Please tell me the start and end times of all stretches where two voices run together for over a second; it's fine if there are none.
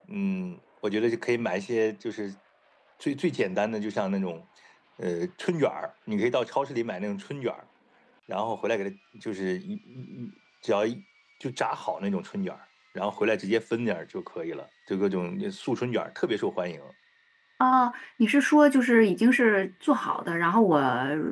none

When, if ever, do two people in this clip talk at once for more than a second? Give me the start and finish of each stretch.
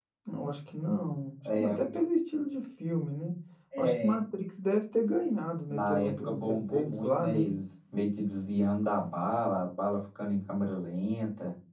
5.7-7.5

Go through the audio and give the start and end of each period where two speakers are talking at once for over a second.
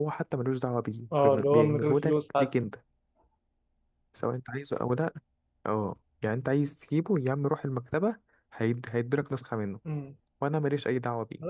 1.2-2.5

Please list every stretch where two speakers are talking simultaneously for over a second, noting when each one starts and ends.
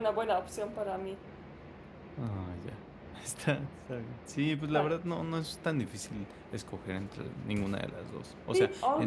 none

